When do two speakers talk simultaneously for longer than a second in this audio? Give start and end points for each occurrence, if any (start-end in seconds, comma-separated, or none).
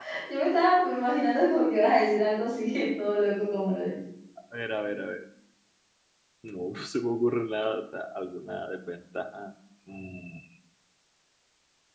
none